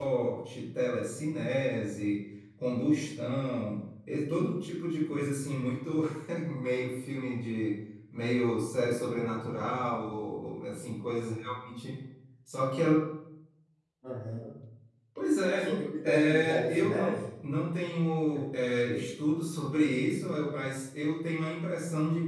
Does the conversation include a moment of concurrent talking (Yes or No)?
Yes